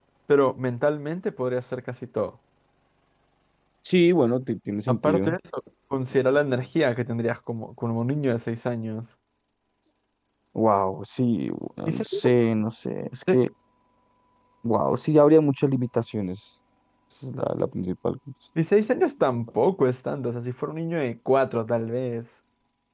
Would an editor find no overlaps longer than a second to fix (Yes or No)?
Yes